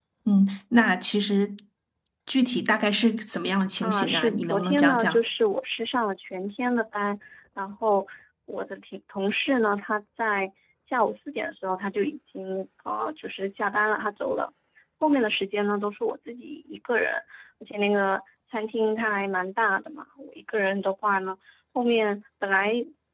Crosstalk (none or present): present